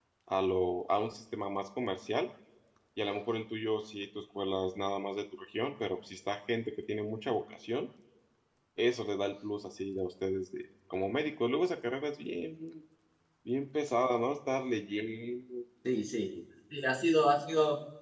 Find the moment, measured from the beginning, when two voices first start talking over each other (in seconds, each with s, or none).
none